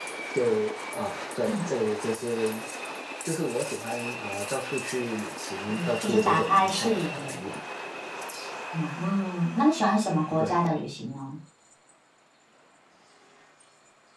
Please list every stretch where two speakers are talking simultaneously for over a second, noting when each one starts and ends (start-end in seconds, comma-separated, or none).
5.7-7.3